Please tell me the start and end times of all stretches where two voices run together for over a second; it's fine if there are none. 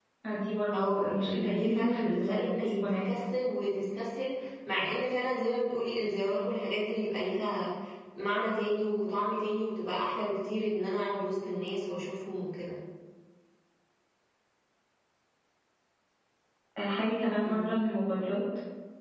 0.7-3.0

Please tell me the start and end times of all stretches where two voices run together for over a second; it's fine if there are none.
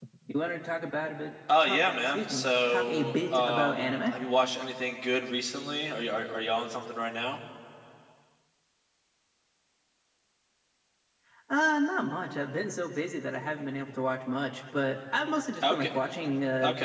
1.6-4.1

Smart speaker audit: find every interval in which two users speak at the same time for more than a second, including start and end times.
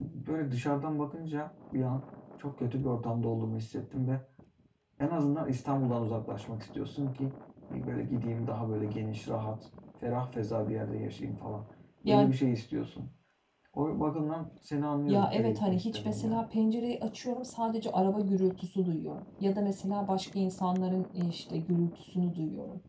15.1-16.4

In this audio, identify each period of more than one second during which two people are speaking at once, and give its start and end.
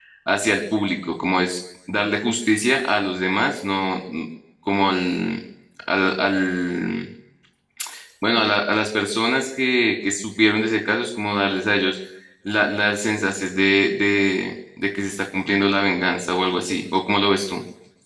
none

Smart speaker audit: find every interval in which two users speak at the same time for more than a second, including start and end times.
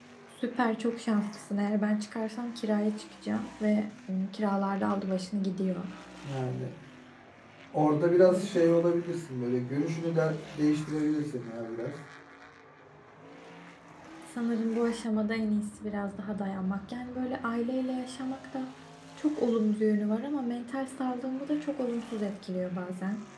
none

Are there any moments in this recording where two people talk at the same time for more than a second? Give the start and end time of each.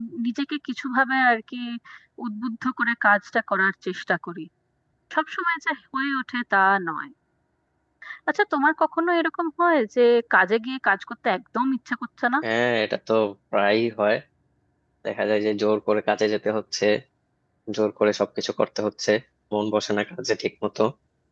none

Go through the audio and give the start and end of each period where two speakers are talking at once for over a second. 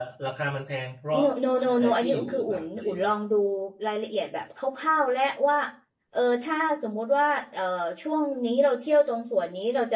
1.8-3.0

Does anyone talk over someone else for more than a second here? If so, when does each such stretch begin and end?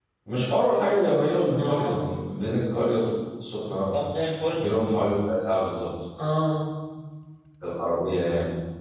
none

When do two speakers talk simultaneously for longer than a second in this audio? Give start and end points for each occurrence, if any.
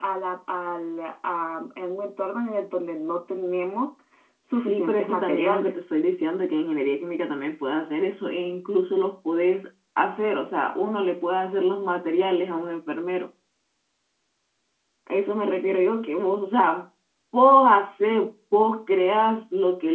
4.5-5.7

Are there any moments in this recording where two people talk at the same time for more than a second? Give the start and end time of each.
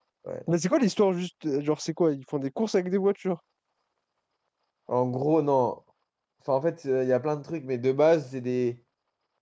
none

